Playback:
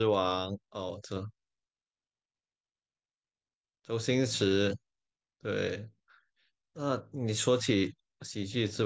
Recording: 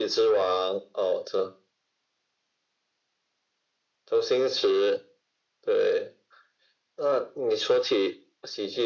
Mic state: echo only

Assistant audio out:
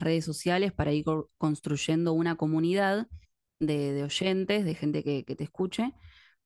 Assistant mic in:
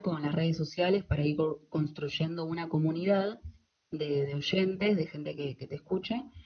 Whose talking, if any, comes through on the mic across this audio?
echo only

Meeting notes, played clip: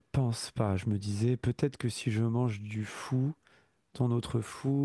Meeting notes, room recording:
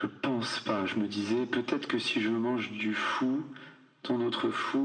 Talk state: echo only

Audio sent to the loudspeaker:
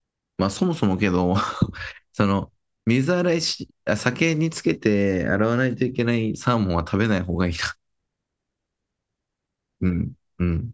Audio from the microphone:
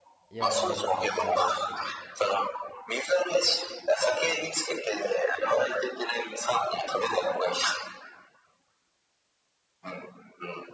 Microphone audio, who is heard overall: both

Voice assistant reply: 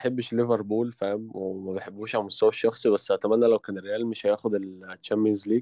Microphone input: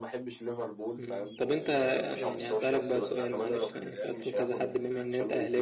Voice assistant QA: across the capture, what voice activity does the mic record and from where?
both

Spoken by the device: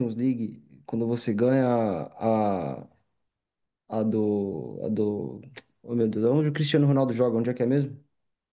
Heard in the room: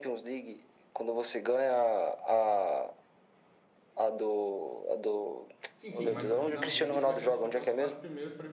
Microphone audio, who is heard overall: both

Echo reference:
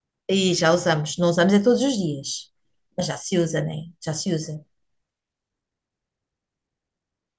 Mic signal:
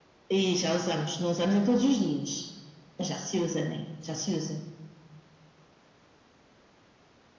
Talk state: echo only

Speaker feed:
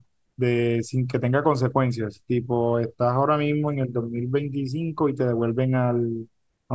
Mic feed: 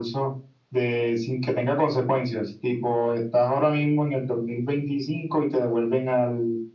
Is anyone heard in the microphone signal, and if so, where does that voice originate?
echo only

